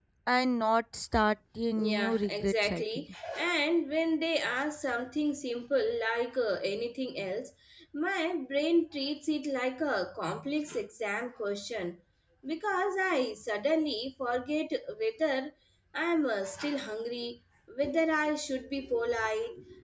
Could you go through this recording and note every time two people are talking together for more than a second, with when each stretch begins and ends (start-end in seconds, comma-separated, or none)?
1.8-3.0